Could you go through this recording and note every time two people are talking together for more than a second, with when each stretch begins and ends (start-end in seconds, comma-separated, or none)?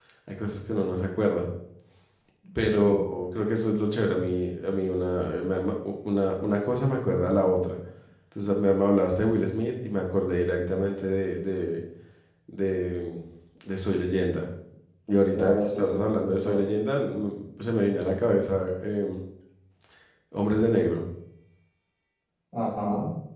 15.3-16.7